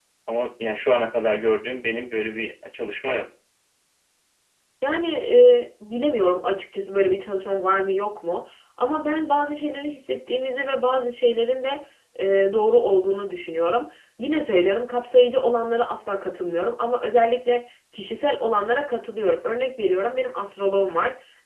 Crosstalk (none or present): none